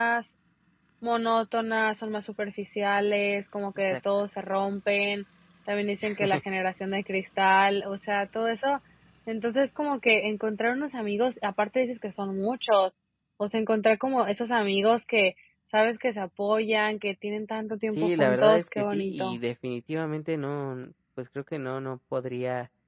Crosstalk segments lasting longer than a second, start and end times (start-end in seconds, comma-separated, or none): 17.9-19.4